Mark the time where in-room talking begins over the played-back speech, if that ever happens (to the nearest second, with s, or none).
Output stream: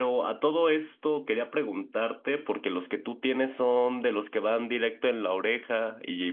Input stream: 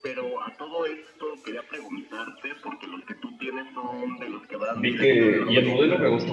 5 s